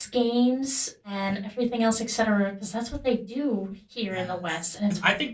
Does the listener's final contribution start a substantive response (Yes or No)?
Yes